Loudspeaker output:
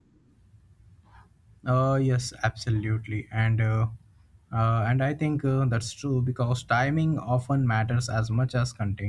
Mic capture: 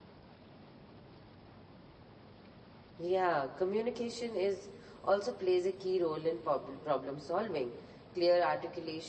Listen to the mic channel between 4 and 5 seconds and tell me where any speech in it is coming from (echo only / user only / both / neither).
user only